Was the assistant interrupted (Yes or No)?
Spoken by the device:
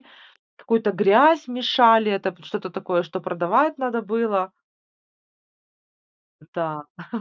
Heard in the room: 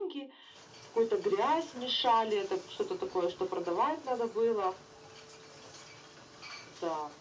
No